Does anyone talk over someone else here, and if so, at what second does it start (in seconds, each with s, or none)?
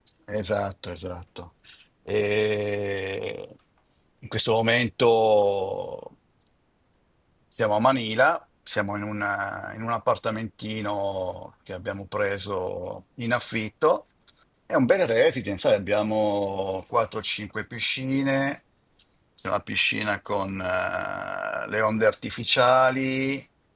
none